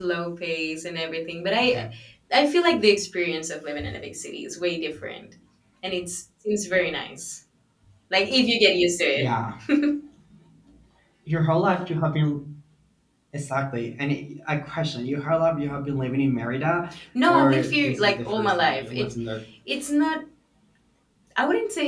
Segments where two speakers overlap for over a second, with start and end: 17.3-19.1

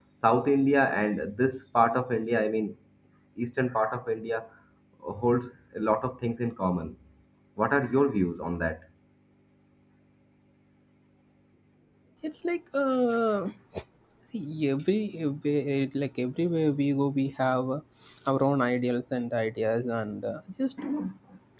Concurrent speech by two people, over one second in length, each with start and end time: none

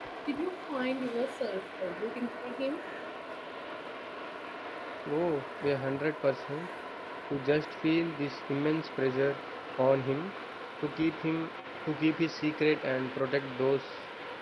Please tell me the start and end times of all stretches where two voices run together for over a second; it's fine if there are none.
none

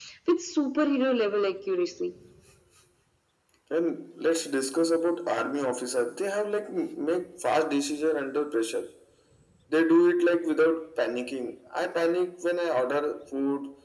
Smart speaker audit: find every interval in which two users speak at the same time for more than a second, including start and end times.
none

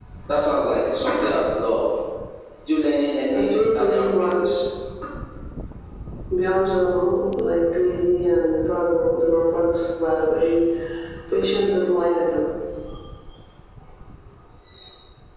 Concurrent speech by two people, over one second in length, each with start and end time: 3.3-4.6

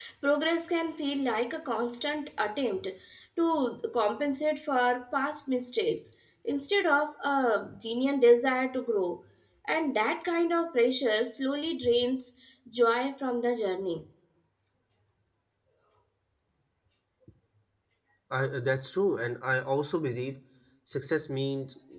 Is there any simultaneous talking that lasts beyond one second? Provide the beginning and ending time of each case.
none

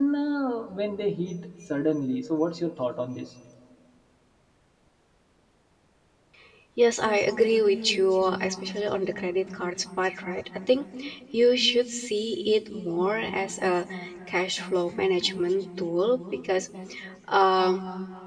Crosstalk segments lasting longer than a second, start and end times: none

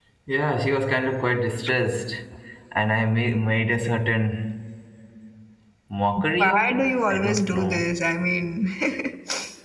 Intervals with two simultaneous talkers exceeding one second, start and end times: 6.4-7.8

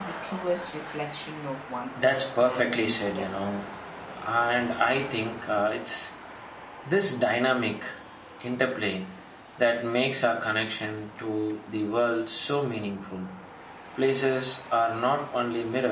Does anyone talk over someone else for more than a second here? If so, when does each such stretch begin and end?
2.0-3.3

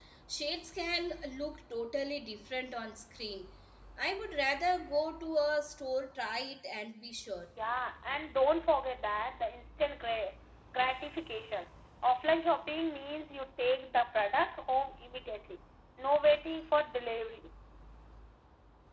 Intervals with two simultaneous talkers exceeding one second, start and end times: none

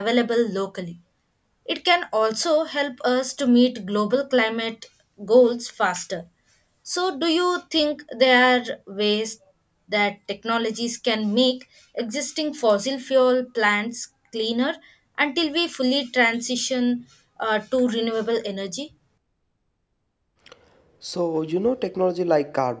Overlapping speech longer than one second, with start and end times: none

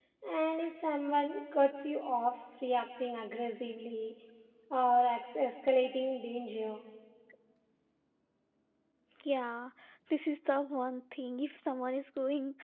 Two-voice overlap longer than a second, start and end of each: none

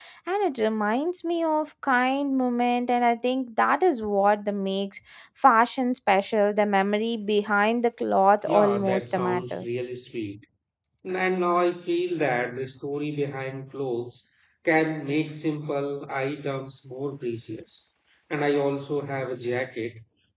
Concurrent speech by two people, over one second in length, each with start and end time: 8.4-9.7

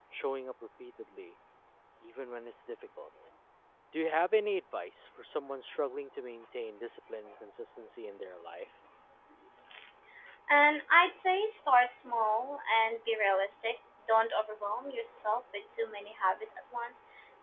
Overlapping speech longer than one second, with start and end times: none

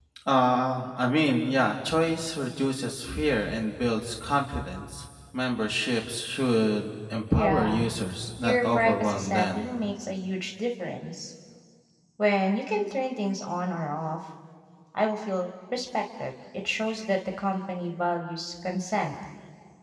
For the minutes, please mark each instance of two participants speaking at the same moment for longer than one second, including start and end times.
8.4-9.7

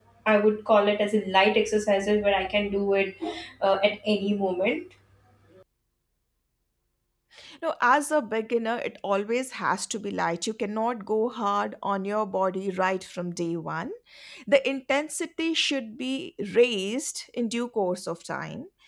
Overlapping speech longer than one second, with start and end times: none

